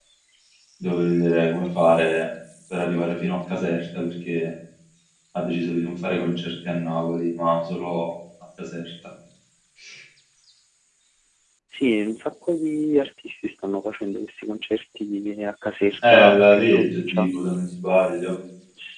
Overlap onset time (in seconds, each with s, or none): 16.0 s